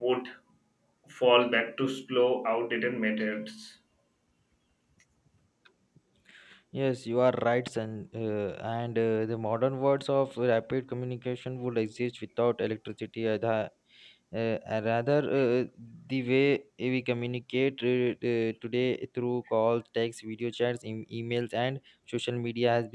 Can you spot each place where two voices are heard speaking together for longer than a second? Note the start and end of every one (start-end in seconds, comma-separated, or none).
none